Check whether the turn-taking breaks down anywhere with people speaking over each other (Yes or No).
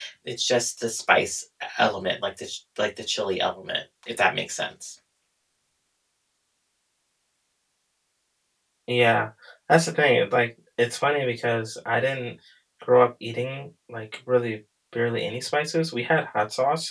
No